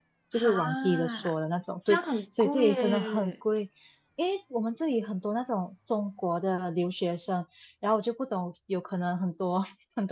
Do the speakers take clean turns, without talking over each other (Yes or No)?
No